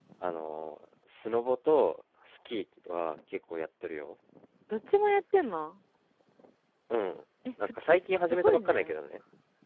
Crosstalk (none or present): present